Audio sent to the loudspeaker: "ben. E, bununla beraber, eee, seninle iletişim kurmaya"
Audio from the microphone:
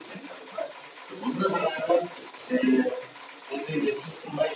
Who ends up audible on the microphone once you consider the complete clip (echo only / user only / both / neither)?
echo only